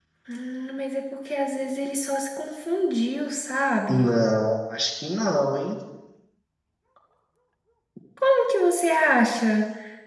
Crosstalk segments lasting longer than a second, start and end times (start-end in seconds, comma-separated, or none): none